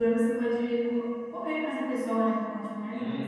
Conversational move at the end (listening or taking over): taking over